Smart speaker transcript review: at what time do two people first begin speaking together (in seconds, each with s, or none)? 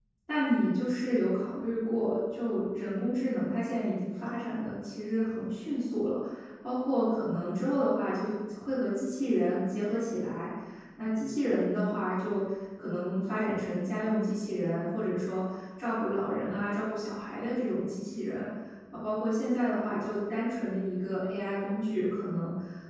none